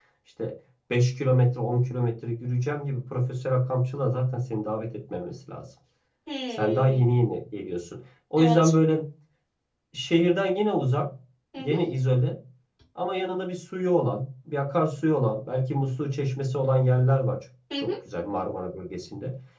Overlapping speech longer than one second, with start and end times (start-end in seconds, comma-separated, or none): none